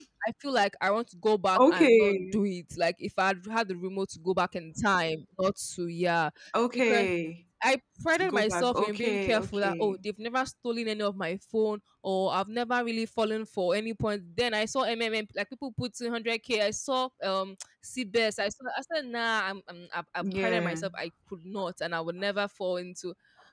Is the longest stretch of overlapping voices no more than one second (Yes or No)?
No